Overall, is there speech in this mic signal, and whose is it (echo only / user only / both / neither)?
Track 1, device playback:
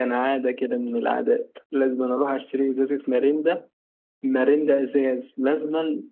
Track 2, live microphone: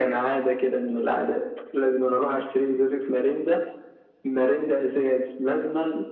echo only